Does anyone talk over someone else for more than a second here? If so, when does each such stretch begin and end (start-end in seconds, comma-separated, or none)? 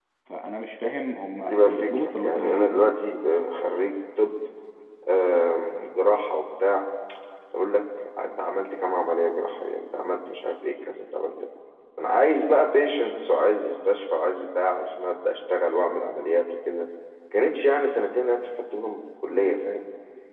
1.5-3.0